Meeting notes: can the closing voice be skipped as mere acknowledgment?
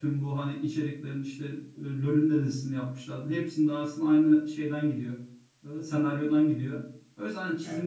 Yes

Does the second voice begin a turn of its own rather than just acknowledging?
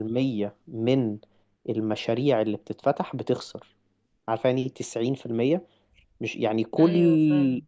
No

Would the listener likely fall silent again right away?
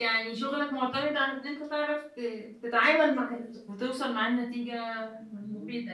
No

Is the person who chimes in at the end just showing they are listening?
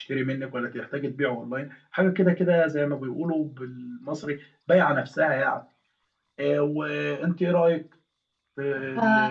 No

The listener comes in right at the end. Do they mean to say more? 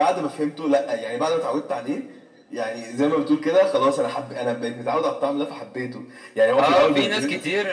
Yes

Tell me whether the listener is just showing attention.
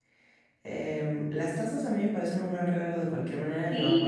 No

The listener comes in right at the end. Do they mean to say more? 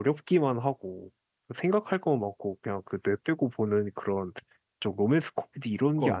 Yes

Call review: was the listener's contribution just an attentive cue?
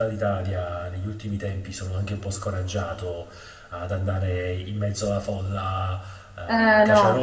Yes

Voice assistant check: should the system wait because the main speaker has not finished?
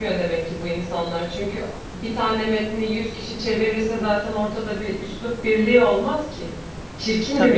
Yes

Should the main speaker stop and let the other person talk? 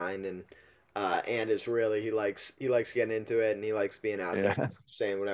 No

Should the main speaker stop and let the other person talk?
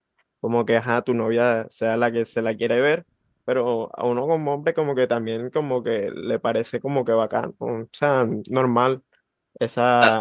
Yes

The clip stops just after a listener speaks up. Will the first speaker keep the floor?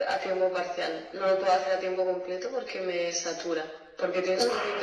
Yes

